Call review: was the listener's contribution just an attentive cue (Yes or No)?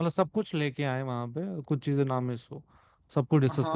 No